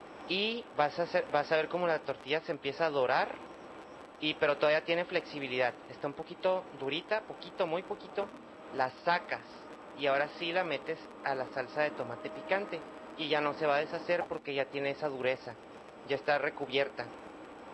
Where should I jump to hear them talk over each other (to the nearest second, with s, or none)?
none